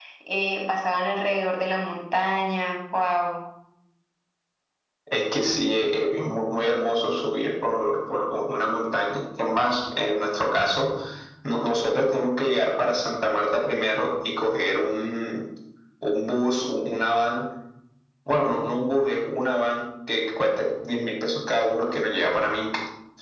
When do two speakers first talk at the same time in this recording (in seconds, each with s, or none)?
none